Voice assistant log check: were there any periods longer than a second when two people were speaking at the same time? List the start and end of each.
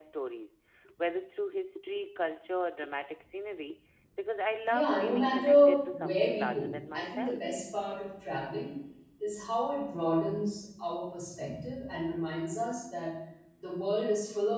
4.7-7.4

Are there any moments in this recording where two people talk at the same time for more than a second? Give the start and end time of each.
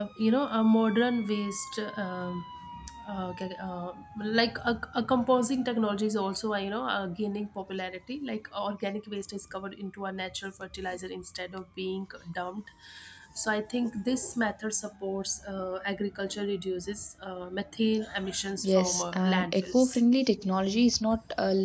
18.6-20.0

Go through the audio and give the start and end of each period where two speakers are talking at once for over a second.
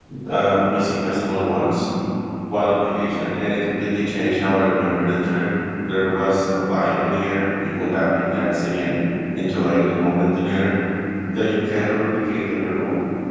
none

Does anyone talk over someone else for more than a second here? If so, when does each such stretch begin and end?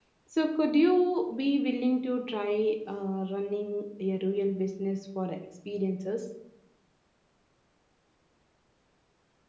none

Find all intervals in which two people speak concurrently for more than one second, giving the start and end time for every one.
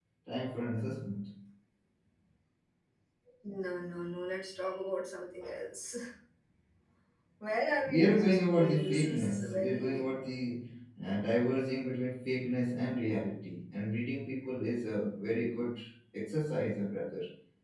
7.9-10.0

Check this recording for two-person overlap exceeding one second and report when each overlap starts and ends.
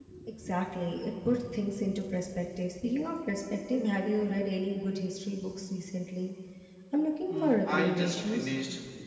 7.3-8.5

